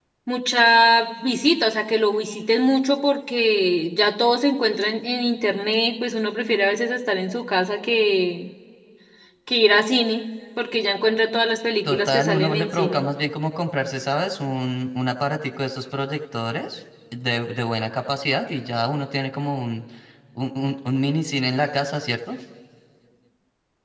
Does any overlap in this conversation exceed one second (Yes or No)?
Yes